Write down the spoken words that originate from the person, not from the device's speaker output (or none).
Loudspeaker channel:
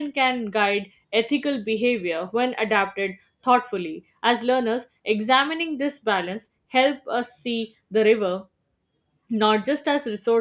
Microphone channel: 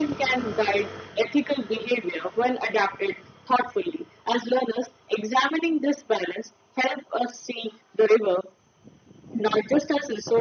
none